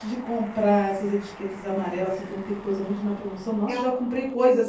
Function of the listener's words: listening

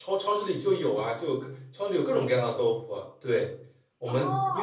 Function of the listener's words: listening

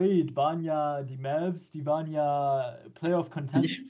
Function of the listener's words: listening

